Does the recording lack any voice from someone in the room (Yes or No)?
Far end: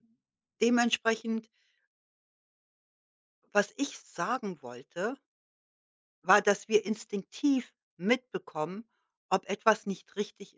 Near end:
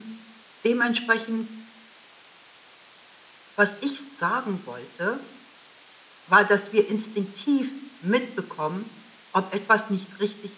Yes